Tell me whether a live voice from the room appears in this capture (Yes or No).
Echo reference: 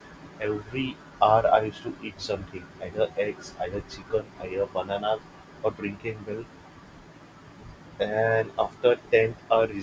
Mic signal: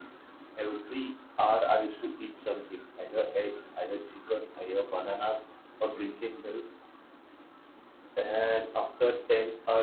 No